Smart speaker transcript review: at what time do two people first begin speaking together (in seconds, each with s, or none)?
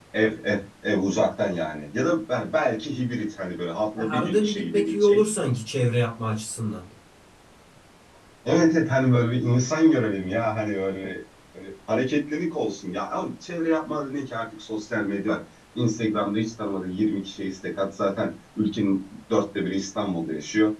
4.0 s